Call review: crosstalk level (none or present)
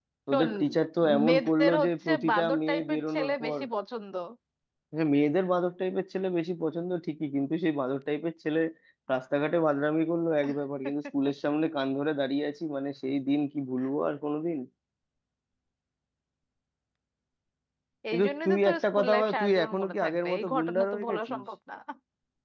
present